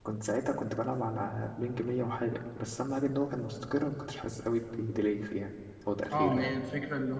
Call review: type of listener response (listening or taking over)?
taking over